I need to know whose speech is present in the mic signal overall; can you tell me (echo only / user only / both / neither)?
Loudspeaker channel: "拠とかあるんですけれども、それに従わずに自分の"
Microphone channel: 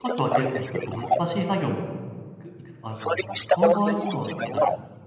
both